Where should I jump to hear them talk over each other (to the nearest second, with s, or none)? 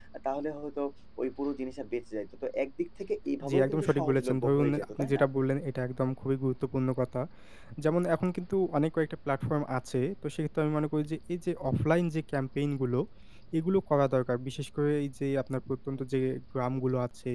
3 s